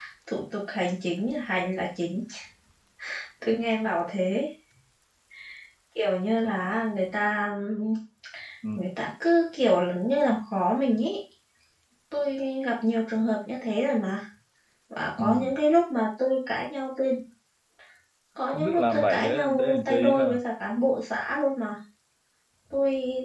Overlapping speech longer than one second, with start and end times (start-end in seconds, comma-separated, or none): 18.5-20.2